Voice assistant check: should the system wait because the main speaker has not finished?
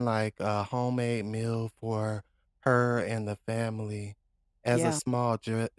Yes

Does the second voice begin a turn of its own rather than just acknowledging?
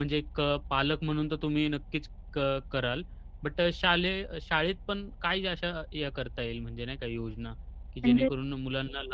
No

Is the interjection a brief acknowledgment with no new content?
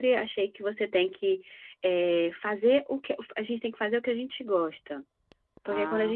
Yes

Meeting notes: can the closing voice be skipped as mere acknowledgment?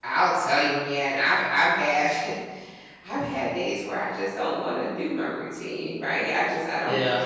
Yes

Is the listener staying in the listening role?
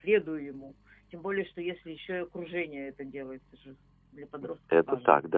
No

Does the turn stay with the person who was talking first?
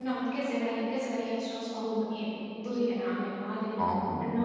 Yes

